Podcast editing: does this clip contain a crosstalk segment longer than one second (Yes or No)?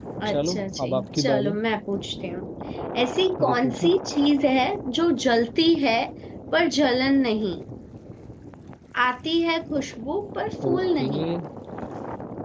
Yes